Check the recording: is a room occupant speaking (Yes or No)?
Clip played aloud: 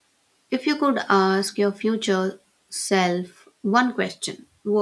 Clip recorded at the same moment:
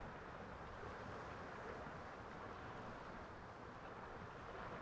No